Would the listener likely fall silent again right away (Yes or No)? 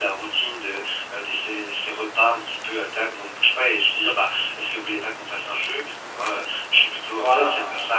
Yes